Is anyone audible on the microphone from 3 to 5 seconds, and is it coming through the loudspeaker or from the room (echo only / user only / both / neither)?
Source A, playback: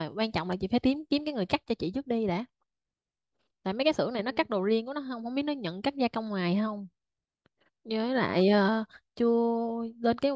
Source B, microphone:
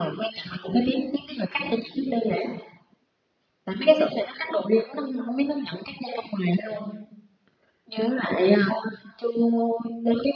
echo only